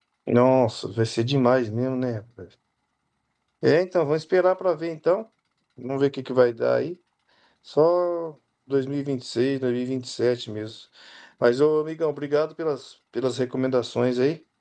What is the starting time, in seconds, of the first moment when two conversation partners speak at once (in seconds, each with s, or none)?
none